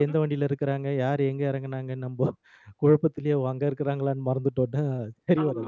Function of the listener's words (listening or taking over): taking over